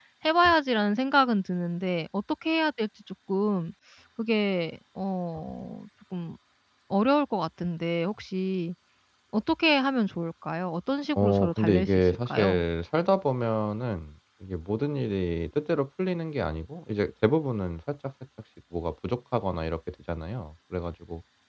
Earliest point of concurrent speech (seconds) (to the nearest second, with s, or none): 11 s